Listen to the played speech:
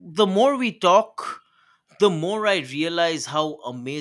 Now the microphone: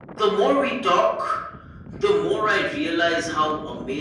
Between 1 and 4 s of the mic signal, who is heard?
echo only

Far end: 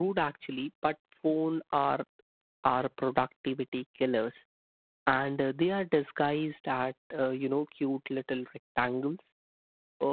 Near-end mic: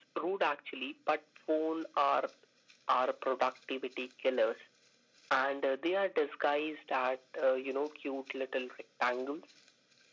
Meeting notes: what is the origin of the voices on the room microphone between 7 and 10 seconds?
echo only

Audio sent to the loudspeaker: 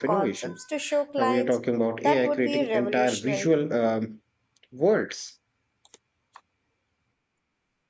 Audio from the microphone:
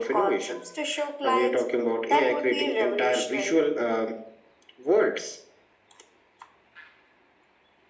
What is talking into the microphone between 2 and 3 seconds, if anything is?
echo only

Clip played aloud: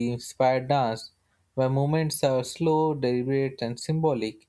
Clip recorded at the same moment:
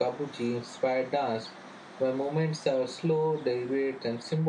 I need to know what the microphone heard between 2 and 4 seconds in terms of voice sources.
echo only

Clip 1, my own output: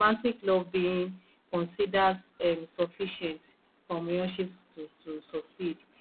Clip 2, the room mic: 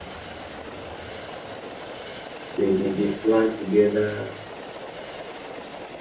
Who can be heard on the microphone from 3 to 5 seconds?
user only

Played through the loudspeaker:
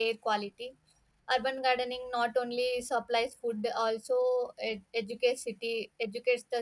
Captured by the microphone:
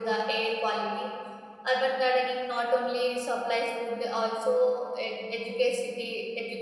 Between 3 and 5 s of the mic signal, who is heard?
echo only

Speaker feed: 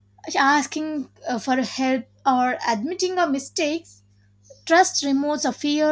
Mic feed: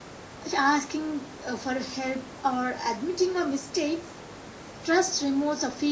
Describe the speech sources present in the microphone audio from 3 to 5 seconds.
echo only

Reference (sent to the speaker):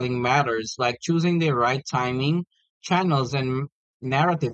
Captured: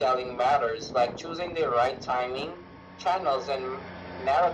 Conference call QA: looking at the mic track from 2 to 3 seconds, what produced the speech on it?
echo only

